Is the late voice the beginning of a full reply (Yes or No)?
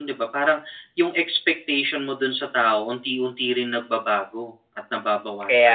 Yes